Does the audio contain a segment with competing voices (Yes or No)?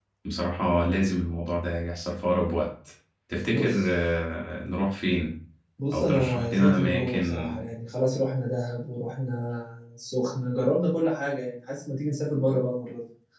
Yes